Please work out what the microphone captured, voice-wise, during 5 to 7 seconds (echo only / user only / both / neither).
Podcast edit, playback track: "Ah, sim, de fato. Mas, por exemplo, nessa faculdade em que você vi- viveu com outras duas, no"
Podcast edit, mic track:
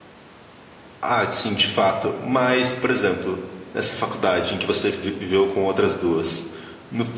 echo only